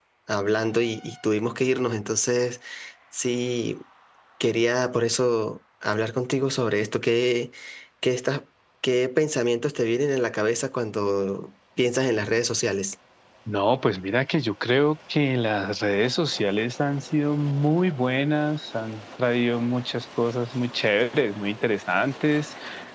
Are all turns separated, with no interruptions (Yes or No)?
Yes